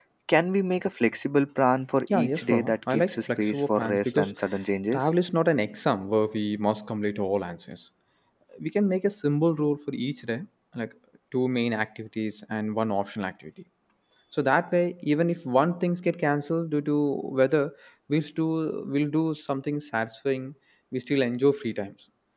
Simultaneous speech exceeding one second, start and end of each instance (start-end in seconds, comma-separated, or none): 2.1-4.3